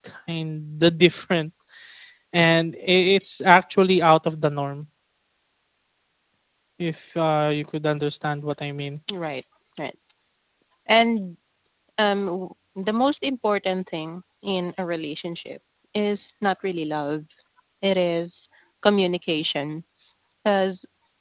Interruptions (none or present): none